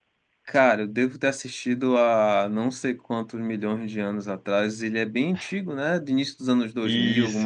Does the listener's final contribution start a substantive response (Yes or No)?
Yes